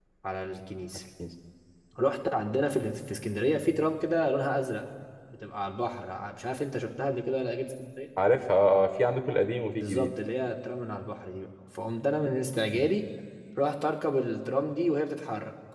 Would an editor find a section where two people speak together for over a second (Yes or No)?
No